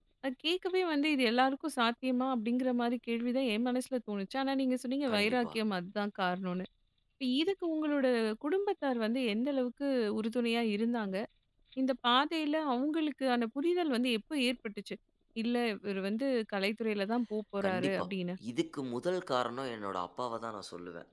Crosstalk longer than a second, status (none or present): none